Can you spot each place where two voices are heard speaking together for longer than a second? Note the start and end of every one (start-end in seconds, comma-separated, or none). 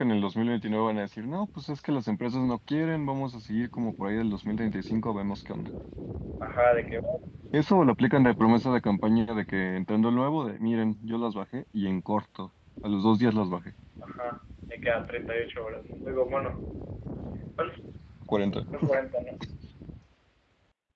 none